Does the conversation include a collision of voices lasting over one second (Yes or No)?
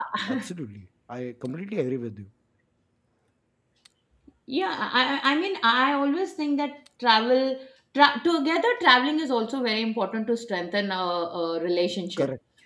No